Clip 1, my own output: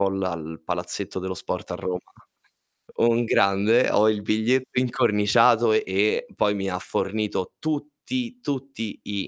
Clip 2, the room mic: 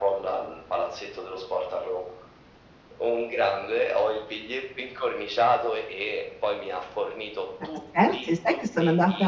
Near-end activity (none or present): present